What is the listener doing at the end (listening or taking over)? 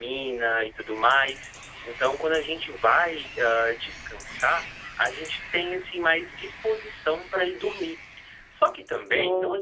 listening